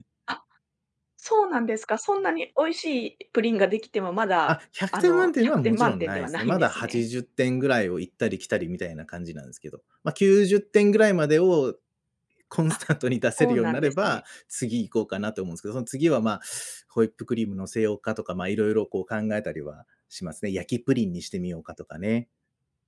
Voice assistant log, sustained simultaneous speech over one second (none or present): present